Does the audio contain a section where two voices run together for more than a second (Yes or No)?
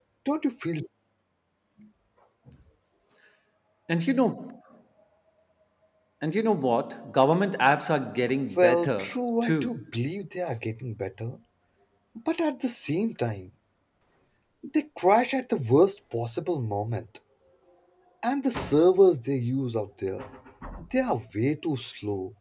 Yes